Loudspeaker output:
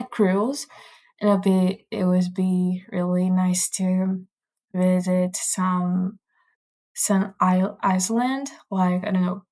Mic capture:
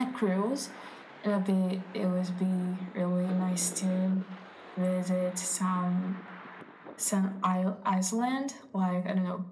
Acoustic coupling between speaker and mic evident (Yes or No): Yes